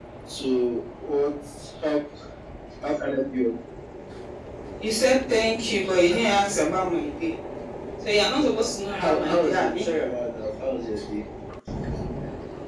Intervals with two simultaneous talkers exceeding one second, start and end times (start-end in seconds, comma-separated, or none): 8.4-9.9